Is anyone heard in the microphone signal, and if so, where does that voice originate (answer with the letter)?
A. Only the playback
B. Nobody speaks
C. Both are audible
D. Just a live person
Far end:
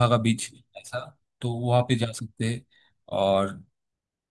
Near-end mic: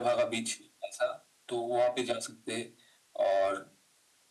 A